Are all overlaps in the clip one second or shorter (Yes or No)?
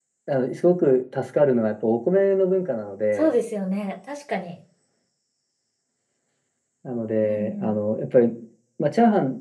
Yes